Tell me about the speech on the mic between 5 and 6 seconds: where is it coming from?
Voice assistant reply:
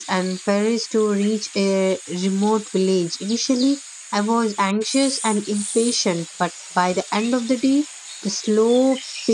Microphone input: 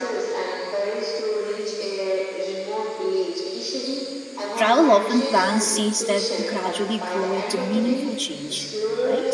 both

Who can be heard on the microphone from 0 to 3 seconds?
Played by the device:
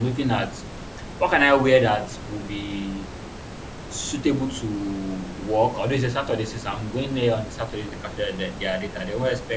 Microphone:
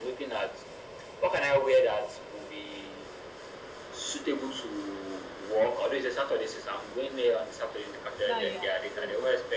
echo only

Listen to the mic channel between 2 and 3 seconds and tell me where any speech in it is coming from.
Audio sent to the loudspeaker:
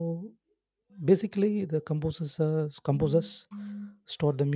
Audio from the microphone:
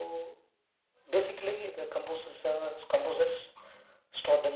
echo only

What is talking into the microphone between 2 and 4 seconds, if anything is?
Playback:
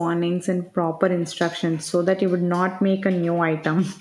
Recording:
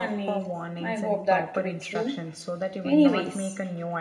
both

